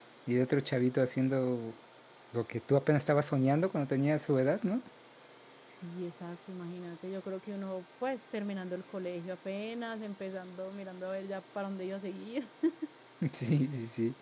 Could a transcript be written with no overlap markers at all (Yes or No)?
Yes